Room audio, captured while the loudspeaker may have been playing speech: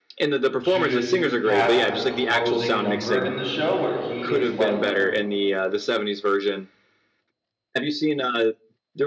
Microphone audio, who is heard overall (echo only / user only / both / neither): both